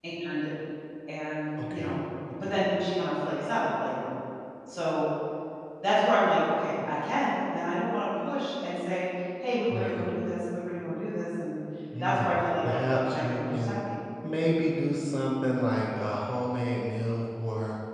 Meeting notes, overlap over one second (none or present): present